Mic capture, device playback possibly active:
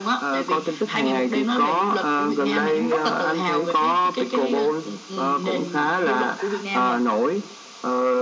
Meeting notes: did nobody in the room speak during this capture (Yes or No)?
Yes